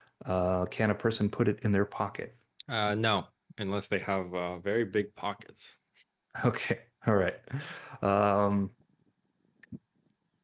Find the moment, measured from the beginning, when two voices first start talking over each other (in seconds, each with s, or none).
none